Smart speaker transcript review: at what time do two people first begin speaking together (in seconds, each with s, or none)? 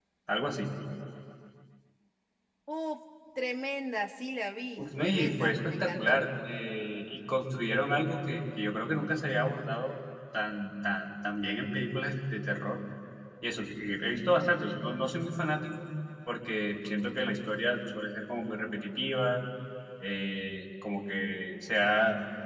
4.8 s